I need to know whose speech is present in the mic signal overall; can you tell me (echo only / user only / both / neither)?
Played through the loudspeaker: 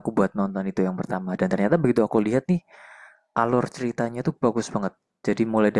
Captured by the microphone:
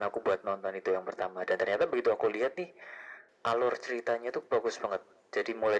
echo only